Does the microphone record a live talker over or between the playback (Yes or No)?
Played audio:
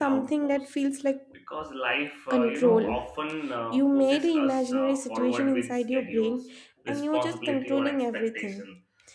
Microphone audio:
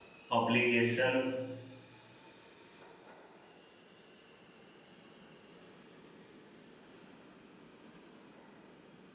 Yes